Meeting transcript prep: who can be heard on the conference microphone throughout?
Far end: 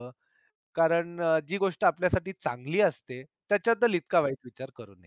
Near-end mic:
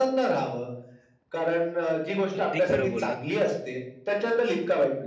both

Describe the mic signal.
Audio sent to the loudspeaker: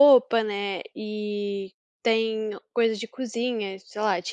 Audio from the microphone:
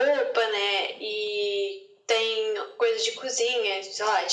echo only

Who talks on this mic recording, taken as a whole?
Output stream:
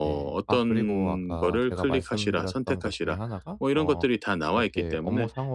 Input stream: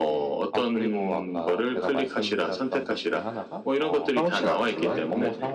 both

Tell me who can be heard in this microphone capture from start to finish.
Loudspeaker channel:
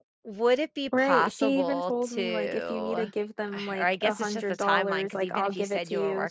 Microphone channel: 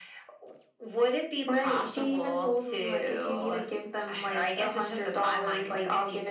echo only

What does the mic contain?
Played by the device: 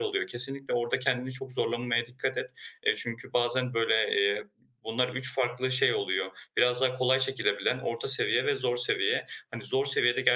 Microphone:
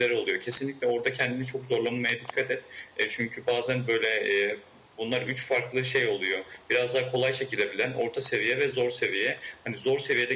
echo only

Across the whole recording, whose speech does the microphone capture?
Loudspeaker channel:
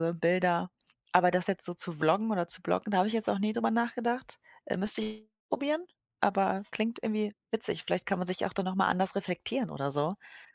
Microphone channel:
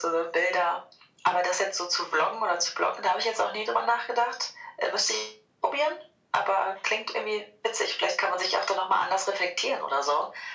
echo only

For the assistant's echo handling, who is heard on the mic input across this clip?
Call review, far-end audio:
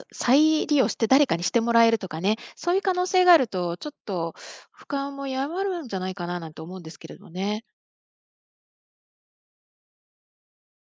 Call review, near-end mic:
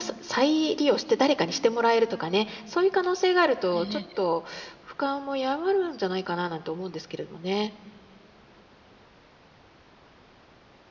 both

